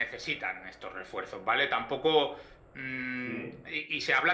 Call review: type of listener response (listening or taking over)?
listening